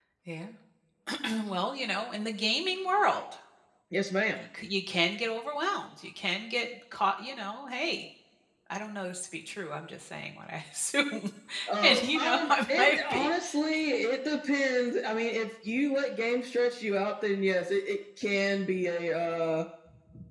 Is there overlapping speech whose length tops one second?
Yes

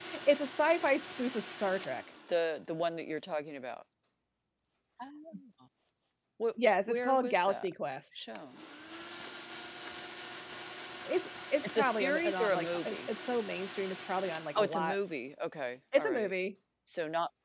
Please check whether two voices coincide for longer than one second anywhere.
Yes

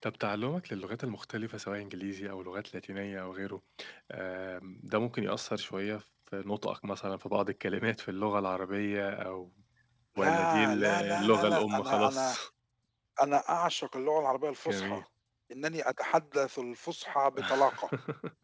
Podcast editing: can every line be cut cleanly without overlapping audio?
No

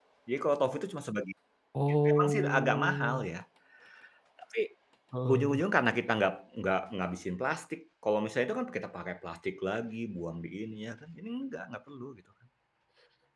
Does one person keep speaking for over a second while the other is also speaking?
Yes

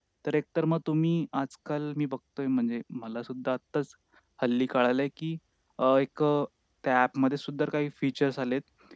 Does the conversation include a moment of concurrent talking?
No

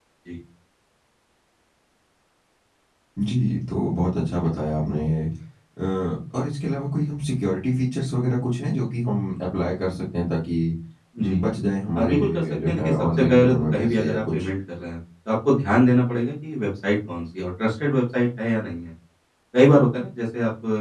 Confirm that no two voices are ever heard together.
No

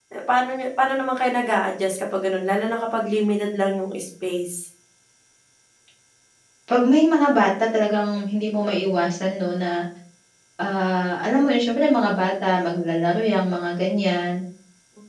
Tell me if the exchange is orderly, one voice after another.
Yes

